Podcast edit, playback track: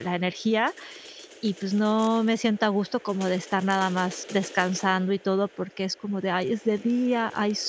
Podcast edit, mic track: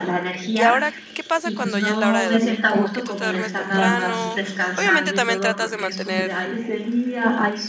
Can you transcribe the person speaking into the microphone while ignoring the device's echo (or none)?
y ahora ¿qué pasa cuando ya es la hora de dormir, como que tú te duermes temprano?, obviamente también tratas de mantener,